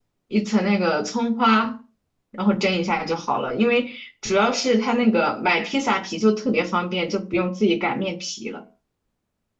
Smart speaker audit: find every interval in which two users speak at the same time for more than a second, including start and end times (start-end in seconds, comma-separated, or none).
none